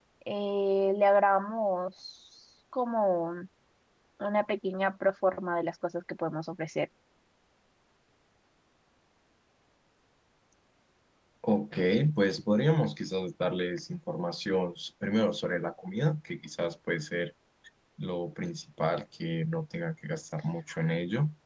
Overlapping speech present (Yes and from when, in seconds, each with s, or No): No